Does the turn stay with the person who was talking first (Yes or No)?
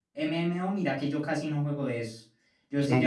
Yes